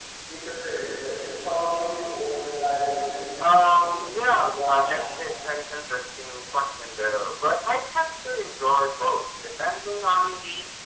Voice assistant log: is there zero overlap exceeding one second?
No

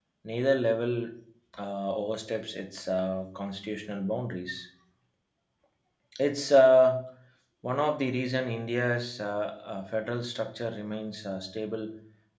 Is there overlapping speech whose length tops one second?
No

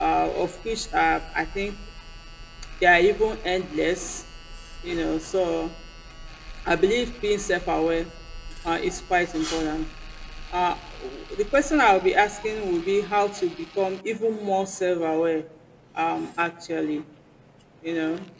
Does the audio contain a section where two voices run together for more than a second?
No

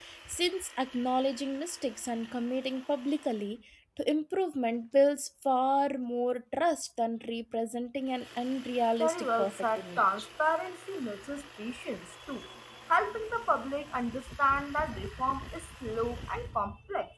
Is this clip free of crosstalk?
No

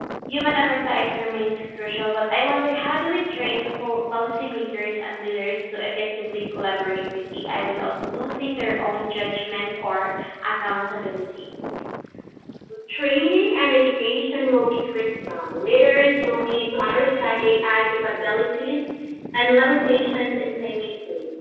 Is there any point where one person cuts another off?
No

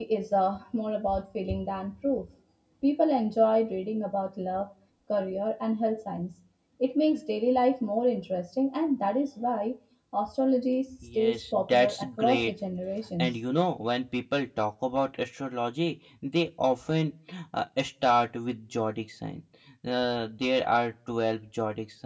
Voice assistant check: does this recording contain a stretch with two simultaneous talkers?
Yes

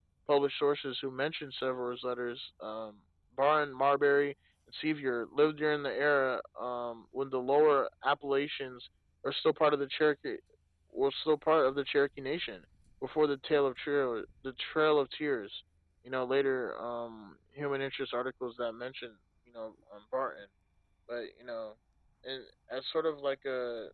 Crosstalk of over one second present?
No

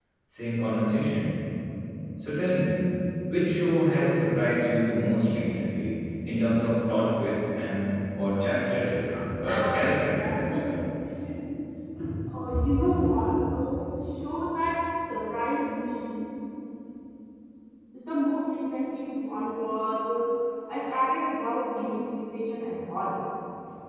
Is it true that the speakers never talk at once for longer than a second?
No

